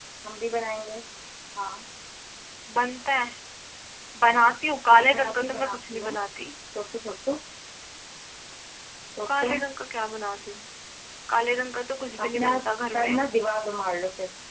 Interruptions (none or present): present